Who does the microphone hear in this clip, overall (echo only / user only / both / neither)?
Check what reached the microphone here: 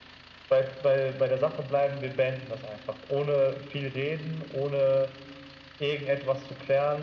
echo only